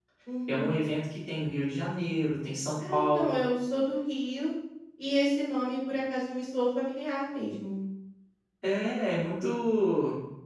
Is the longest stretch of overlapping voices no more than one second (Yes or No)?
Yes